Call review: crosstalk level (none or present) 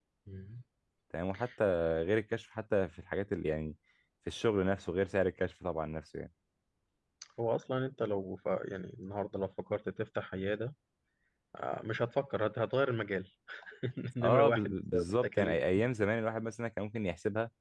present